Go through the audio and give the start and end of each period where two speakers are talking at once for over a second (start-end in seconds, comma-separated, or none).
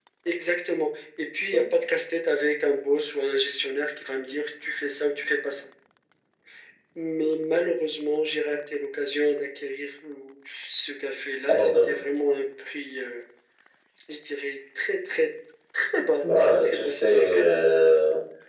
16.2-17.6